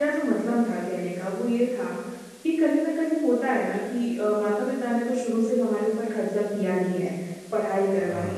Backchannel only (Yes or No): Yes